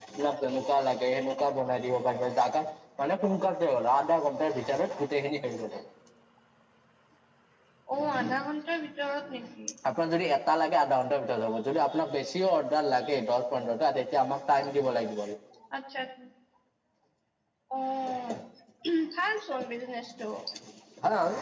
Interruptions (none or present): none